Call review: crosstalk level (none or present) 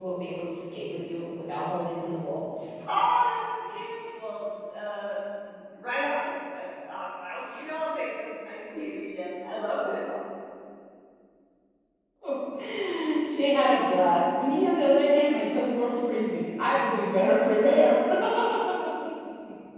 none